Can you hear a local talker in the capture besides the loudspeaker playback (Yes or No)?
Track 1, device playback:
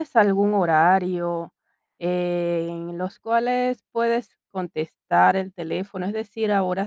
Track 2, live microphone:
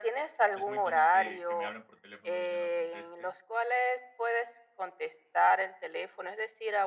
Yes